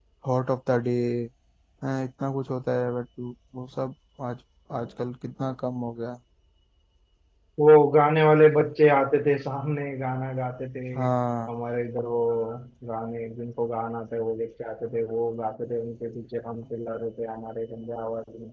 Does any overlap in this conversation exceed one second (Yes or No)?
No